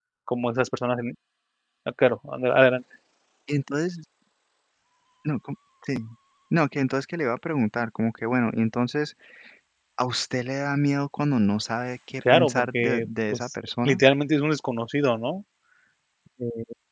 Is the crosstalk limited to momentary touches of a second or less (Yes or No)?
No